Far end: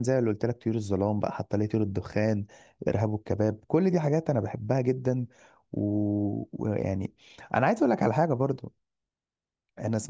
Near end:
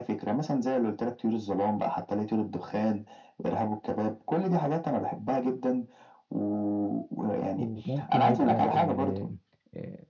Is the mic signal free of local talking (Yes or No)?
No